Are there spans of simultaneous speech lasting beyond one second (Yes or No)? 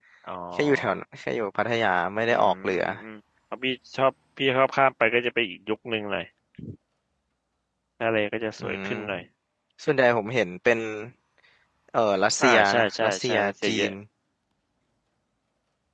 Yes